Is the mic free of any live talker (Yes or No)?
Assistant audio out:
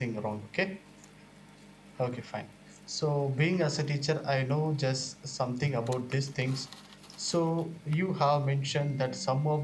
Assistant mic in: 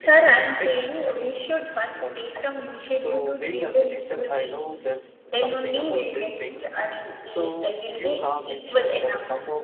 No